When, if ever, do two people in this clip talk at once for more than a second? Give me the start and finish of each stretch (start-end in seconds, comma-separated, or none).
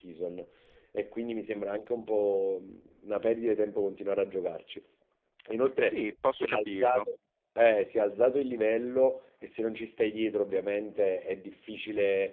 5.8-7.0